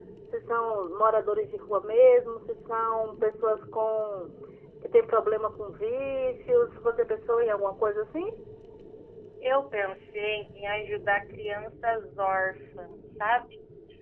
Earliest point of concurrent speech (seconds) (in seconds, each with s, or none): none